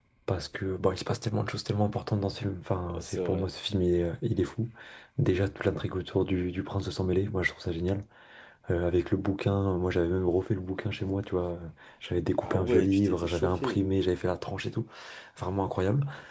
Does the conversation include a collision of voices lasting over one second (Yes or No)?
Yes